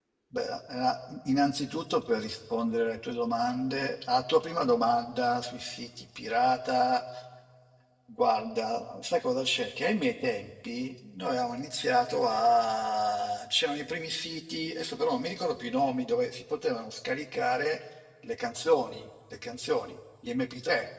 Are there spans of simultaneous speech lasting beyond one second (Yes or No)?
No